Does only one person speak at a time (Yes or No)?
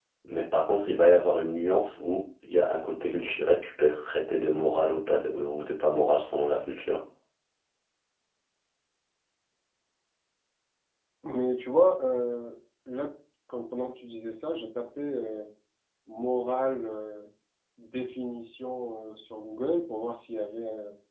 Yes